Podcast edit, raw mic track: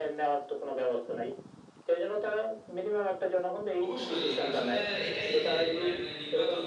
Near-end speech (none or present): present